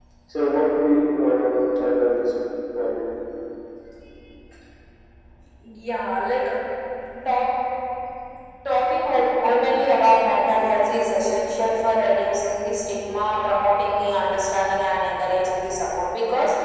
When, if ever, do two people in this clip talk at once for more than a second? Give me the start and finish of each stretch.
none

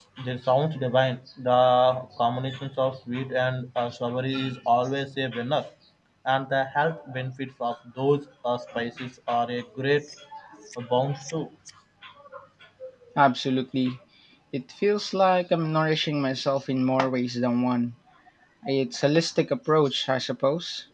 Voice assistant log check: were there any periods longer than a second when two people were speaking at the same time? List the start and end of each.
none

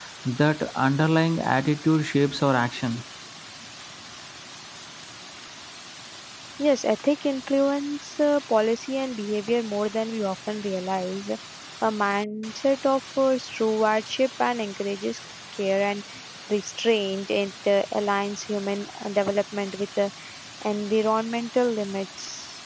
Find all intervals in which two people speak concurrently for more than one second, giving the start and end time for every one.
none

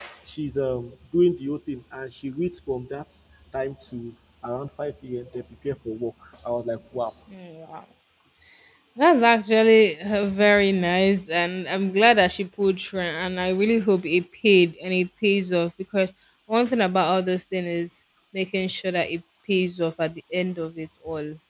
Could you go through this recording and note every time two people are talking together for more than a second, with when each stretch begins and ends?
none

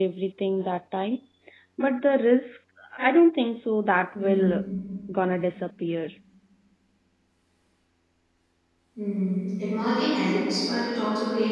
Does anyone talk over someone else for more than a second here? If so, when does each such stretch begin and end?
none

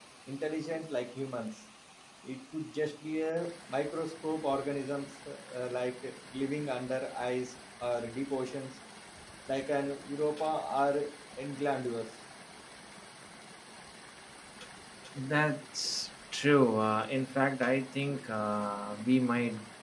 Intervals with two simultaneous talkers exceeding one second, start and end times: none

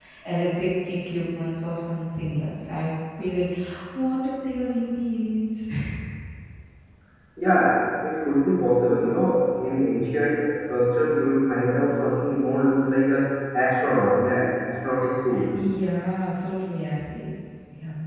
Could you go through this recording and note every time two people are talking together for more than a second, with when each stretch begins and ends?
none

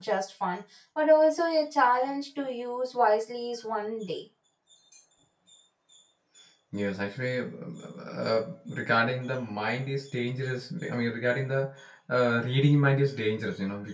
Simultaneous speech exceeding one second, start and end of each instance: none

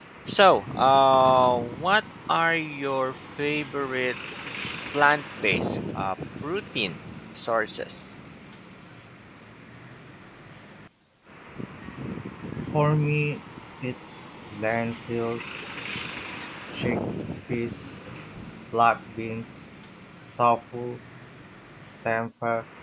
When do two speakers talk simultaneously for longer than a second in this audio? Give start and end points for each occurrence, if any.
none

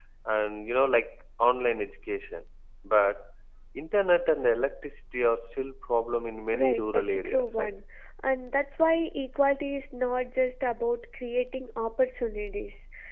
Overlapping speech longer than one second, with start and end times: 6.5-7.8

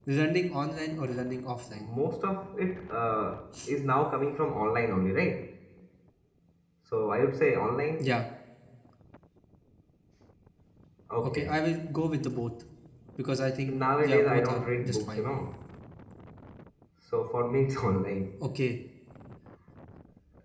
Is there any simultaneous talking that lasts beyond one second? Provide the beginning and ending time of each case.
13.7-15.2

